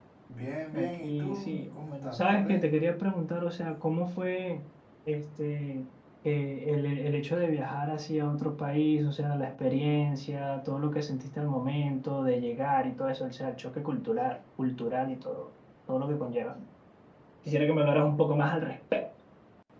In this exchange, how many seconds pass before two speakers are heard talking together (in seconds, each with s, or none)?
0.7 s